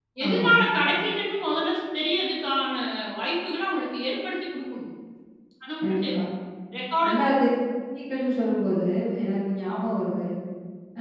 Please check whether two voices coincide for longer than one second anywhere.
No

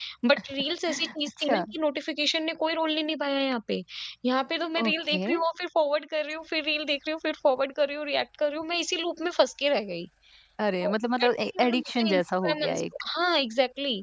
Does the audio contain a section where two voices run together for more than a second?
Yes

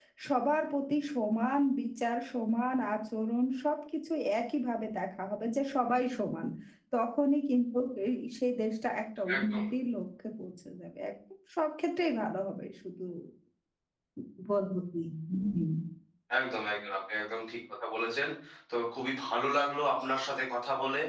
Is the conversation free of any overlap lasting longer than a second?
Yes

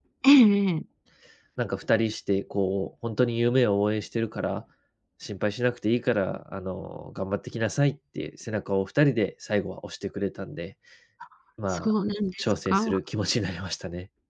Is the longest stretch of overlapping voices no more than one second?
Yes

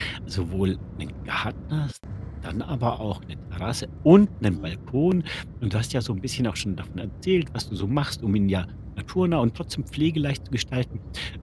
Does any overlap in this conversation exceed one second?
No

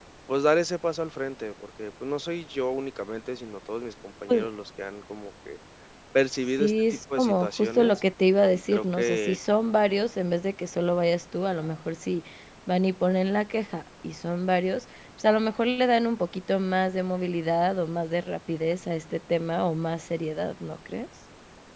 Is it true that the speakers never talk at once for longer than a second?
No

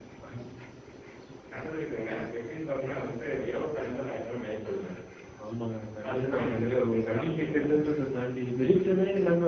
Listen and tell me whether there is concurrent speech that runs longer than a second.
Yes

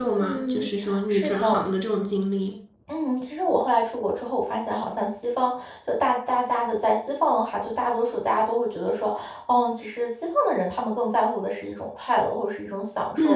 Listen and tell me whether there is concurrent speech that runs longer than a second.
Yes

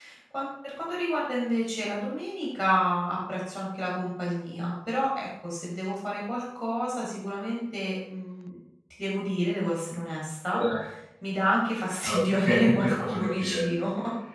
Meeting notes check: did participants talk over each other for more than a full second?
Yes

